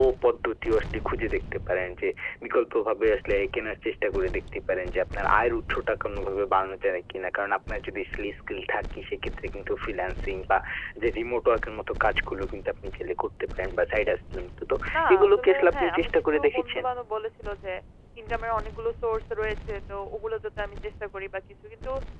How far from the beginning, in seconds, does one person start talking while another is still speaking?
15 s

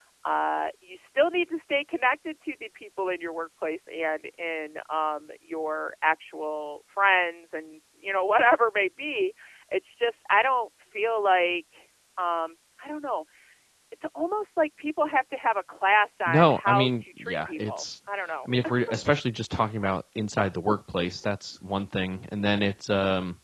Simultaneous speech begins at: 16 s

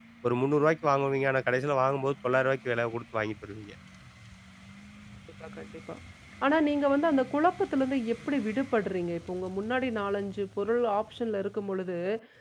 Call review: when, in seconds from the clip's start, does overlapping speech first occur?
none

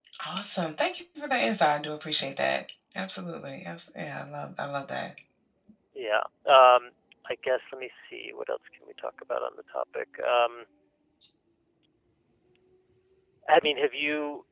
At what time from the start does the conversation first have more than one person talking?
none

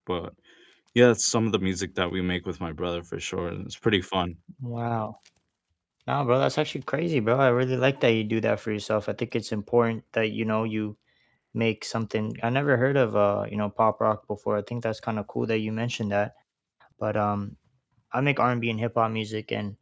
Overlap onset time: none

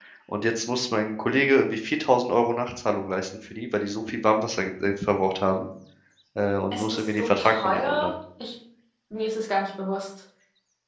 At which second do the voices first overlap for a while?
7 s

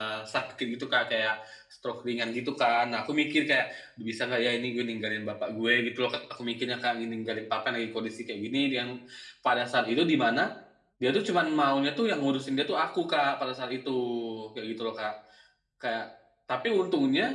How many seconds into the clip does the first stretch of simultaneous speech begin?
none

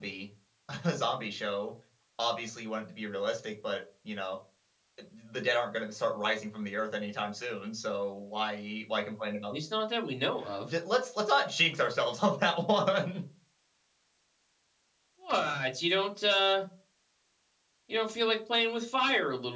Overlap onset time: none

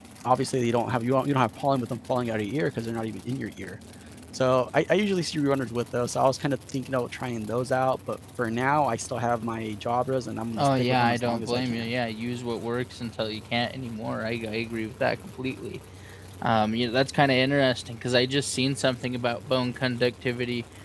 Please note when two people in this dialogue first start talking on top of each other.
11 s

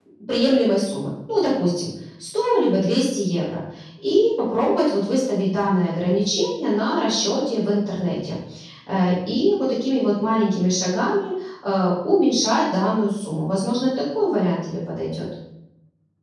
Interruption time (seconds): none

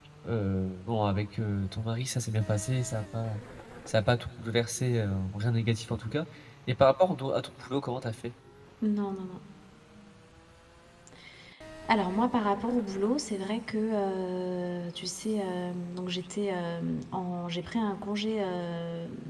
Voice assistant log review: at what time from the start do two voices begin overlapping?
none

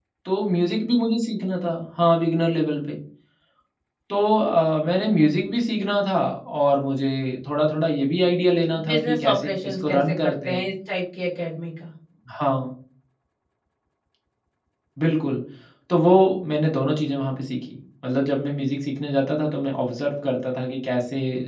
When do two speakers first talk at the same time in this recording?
9 s

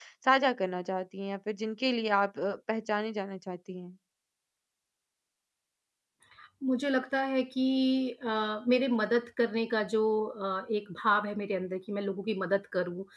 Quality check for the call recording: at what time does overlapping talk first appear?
none

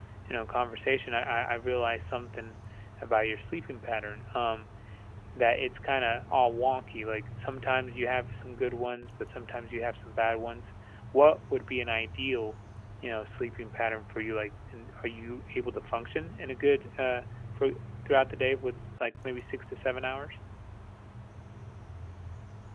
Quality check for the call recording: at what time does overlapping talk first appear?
none

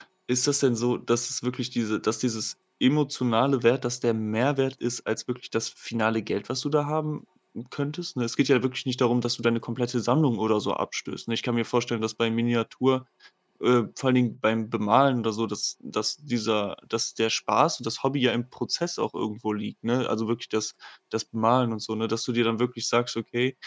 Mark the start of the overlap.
none

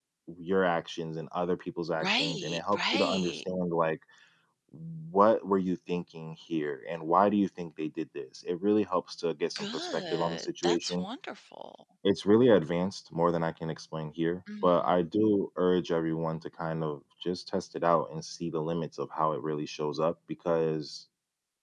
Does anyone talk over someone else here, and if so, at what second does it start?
2 s

